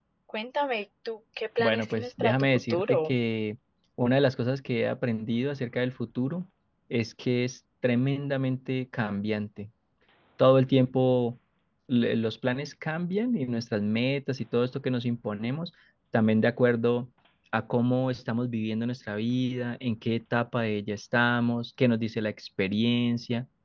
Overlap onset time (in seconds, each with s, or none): 1.6 s